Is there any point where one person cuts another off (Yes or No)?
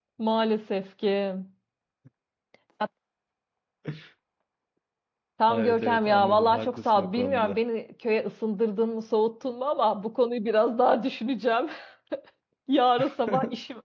Yes